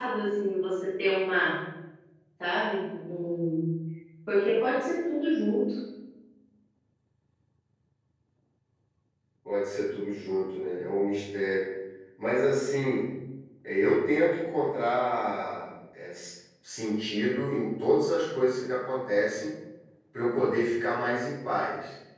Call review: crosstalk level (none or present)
none